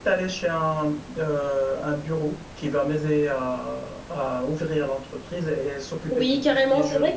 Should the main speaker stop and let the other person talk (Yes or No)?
Yes